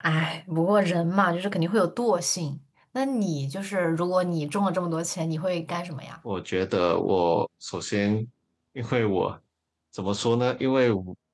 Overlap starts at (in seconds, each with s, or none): none